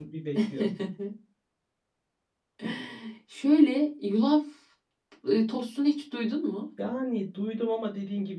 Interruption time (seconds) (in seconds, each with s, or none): none